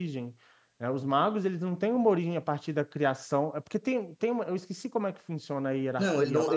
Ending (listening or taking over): taking over